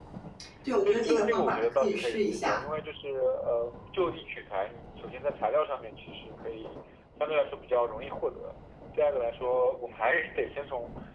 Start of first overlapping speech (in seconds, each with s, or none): 0.8 s